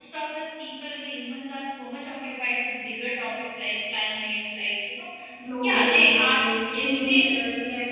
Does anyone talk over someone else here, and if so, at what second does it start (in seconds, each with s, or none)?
5.6 s